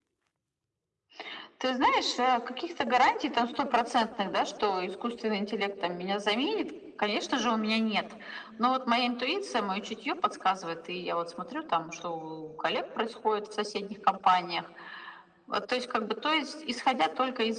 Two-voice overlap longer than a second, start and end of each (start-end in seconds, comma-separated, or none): none